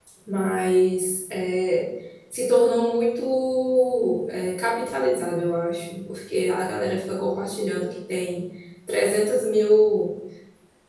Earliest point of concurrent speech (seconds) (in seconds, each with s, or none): none